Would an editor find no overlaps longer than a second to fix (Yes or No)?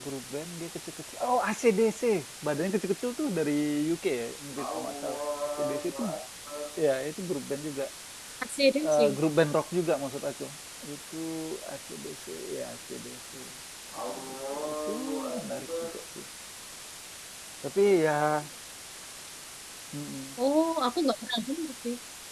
Yes